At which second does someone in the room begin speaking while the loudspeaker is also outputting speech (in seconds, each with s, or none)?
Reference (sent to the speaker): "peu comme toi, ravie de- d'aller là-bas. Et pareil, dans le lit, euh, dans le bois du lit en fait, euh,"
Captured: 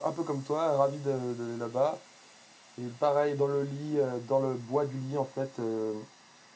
none